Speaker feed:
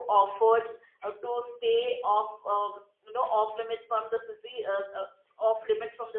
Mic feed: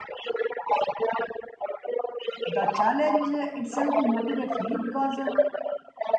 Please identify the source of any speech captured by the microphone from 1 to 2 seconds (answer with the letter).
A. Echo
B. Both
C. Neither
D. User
A